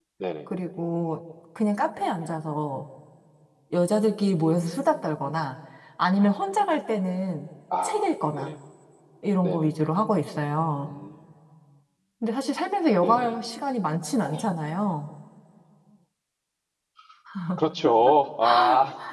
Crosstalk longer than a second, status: none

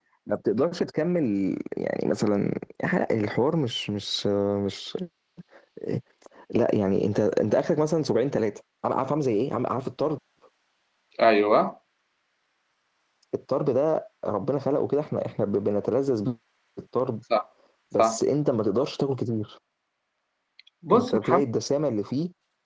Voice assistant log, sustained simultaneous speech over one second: none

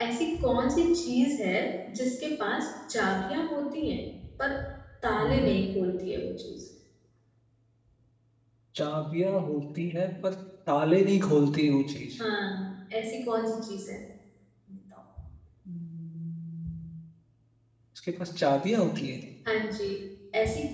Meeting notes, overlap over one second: none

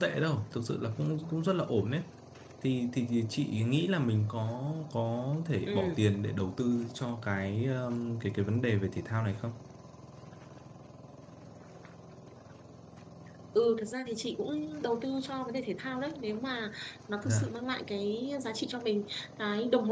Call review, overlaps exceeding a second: none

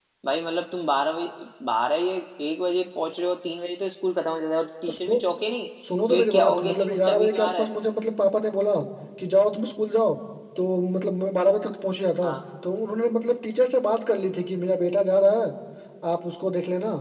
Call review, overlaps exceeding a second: present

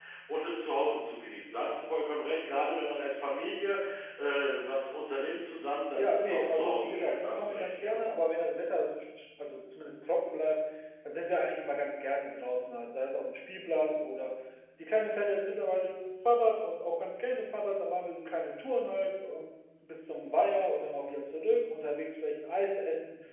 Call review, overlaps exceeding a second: present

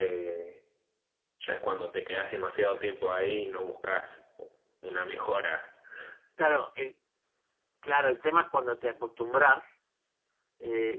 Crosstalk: none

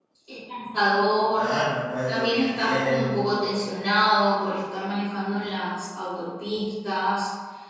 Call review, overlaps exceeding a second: present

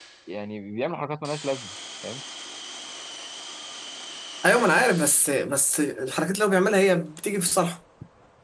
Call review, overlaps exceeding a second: none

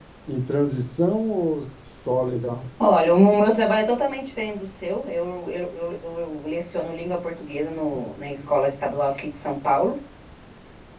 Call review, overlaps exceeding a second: none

